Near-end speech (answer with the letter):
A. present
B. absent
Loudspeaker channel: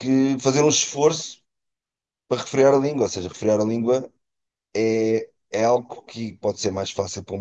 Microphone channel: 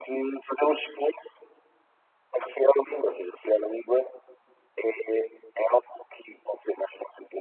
B